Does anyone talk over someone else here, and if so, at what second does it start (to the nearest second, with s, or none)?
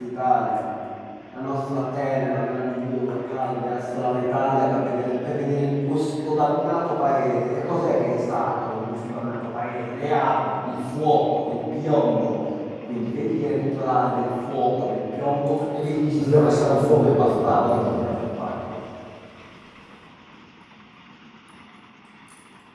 16 s